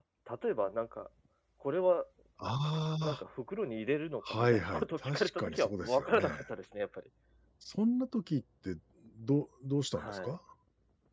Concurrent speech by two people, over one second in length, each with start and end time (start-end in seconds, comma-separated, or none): 4.4-6.3